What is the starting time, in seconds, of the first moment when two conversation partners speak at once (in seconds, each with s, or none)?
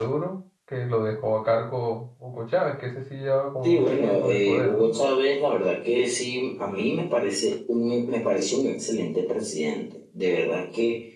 3.6 s